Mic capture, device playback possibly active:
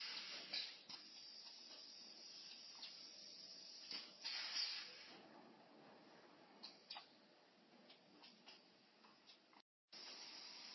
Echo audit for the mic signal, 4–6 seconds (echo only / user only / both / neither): neither